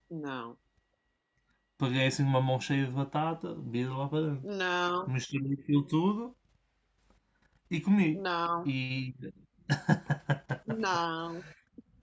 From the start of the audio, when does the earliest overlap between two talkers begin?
none

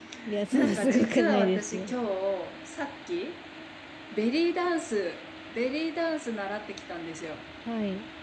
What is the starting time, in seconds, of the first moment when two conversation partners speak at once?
0.5 s

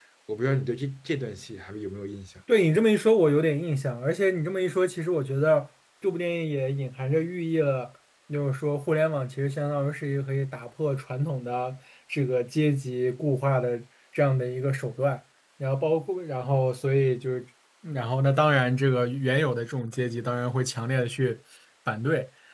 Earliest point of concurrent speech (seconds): none

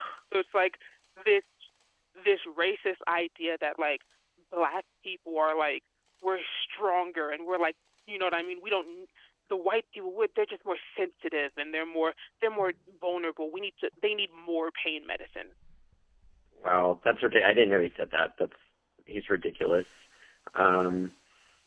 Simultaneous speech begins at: none

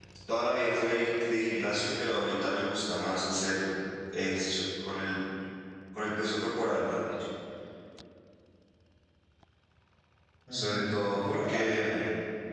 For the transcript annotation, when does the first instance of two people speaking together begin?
10.5 s

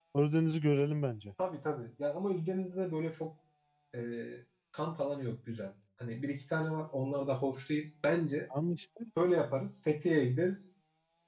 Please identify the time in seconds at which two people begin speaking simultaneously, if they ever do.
none

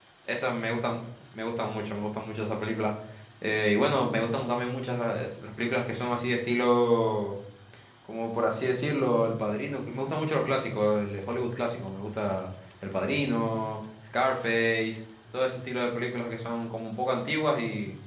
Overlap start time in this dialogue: none

